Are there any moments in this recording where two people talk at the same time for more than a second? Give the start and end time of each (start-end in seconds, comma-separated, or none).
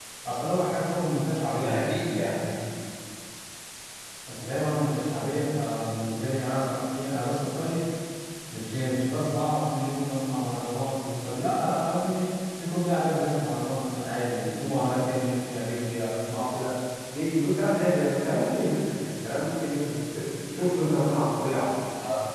none